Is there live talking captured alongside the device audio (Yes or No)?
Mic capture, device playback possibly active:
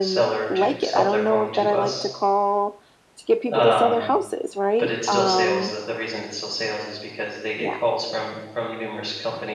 Yes